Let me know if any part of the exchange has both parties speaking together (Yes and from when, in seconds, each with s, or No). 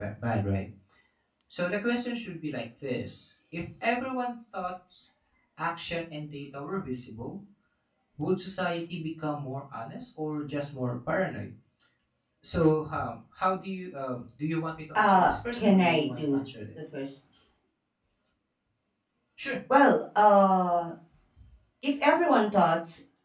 Yes, from 15.0 s